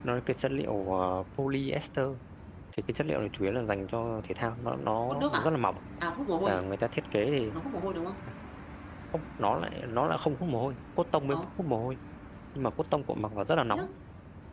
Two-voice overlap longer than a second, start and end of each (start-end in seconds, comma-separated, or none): none